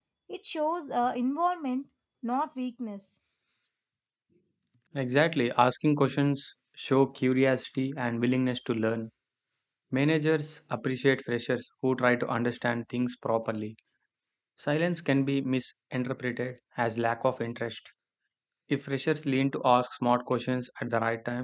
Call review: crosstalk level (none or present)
none